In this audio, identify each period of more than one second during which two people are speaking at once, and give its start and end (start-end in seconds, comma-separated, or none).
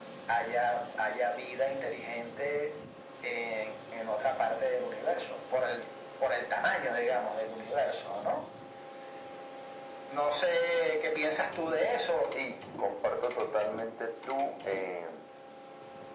none